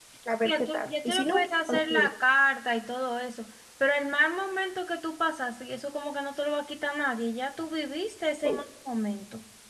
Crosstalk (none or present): present